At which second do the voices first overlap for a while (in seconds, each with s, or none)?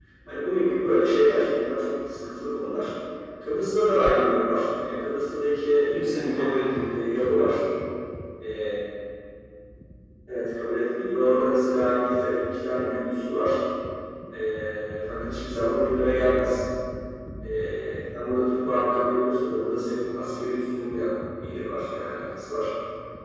6.2 s